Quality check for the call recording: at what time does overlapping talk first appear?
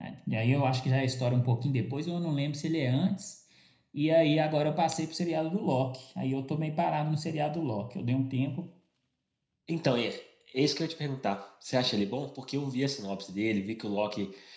none

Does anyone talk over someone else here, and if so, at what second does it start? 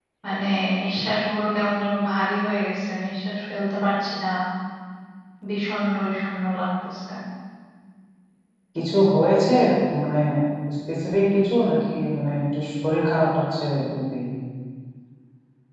none

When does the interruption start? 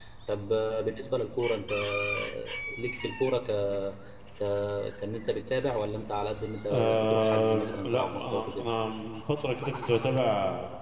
7 s

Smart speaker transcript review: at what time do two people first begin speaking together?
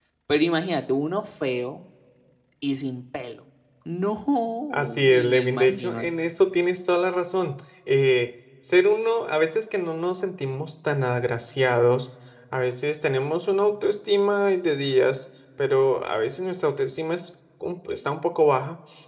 5 s

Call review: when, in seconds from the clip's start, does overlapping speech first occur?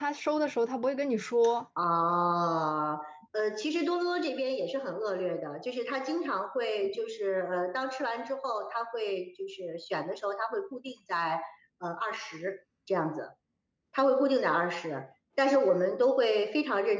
none

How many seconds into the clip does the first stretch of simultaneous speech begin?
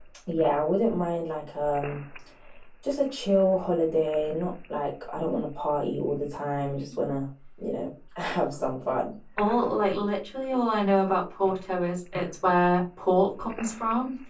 none

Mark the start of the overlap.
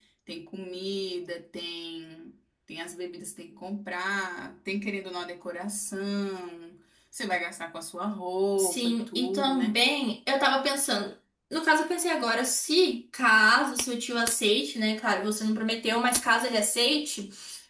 9 s

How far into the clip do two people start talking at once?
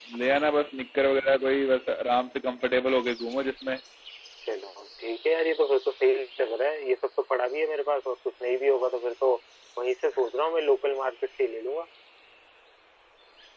none

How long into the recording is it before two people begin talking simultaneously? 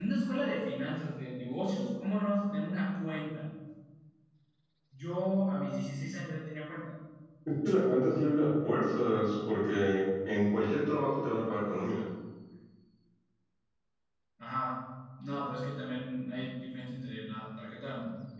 none

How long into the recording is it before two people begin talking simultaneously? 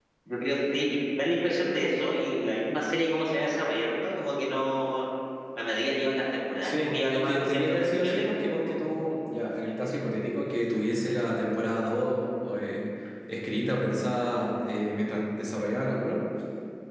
7 s

